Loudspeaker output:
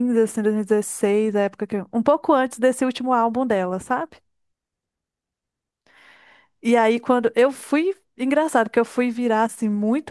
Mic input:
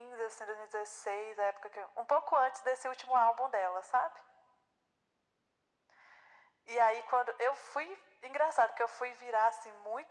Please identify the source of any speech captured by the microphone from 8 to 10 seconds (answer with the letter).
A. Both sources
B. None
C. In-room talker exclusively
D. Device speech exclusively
D